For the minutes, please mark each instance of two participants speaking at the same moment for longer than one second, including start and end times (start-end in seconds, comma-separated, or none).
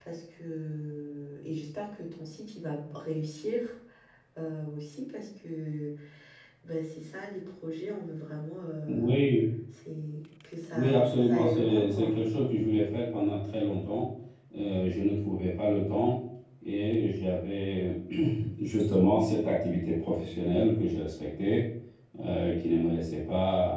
10.7-12.2